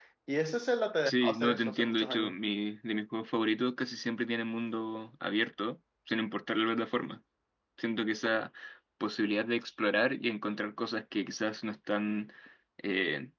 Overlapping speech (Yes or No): Yes